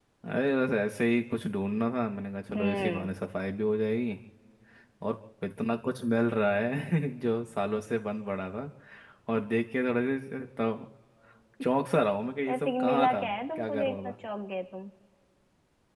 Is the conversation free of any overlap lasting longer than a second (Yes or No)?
No